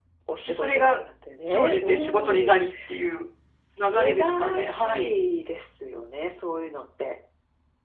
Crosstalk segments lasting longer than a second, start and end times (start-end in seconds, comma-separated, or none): 1.5-2.7, 3.8-5.1